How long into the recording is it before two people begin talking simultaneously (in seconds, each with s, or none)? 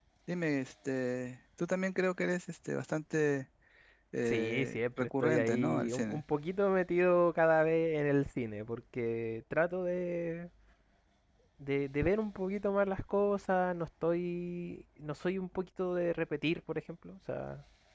4.2 s